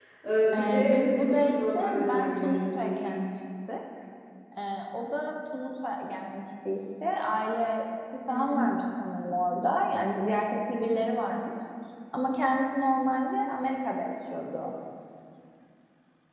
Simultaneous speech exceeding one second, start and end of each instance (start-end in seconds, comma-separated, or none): 0.5-3.0